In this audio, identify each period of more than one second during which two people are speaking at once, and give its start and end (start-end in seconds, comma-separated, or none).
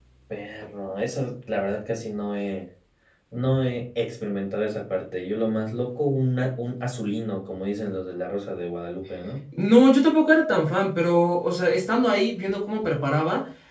none